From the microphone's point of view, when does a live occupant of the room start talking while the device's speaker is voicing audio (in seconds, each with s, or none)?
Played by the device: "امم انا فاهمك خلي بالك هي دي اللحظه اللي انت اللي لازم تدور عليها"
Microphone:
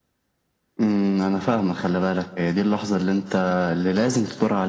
none